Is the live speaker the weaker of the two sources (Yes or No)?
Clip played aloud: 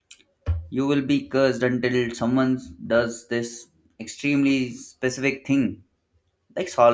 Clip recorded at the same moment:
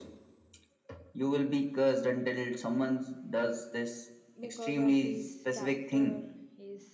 Yes